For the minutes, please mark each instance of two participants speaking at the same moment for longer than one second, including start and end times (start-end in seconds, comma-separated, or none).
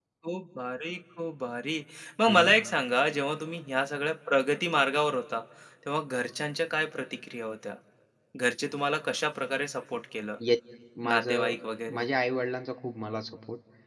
none